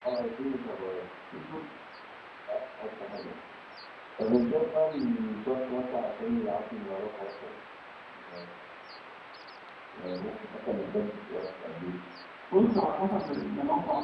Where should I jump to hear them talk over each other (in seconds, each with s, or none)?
none